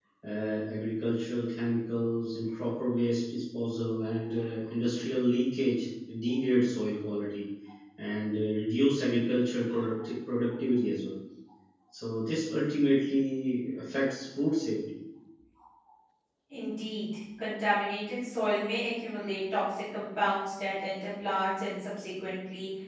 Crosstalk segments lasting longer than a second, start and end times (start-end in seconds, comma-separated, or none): none